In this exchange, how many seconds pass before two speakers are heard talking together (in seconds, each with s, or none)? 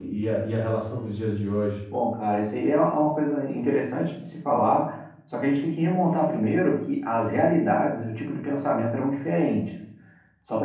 none